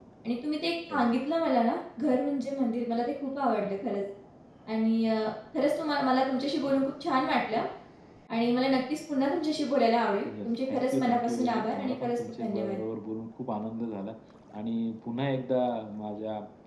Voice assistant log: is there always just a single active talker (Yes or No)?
No